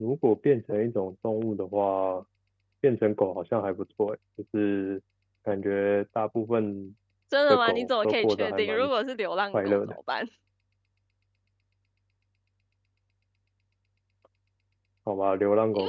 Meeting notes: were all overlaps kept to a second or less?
No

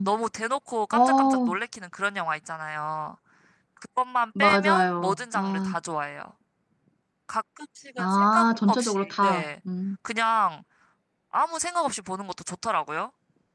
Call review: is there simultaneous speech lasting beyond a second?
Yes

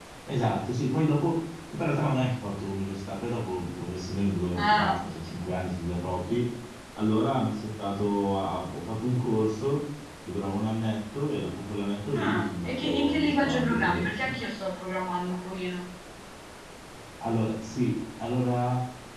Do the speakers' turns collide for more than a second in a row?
Yes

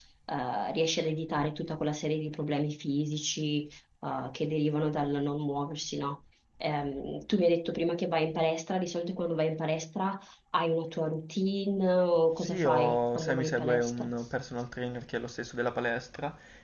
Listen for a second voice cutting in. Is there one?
Yes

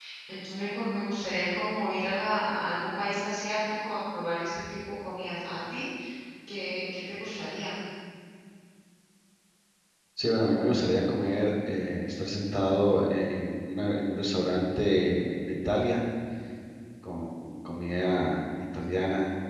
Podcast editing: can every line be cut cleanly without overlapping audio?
Yes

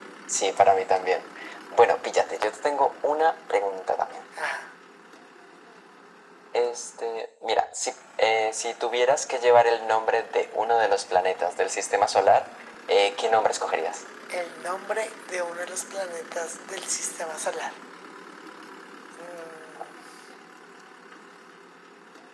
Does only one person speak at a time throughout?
Yes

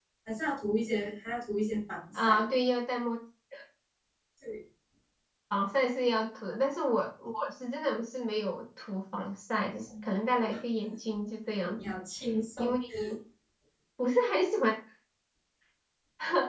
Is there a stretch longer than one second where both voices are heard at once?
No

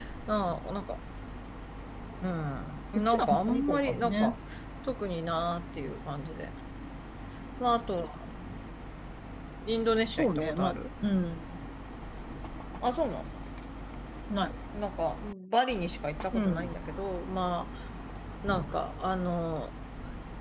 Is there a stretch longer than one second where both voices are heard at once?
Yes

